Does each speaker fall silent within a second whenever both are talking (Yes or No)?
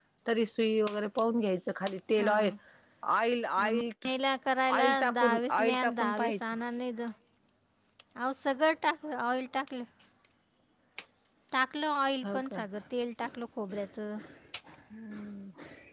No